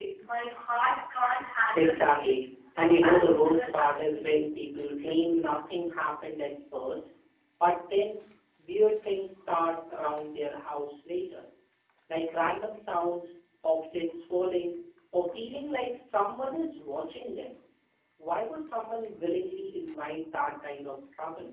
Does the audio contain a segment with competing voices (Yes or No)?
Yes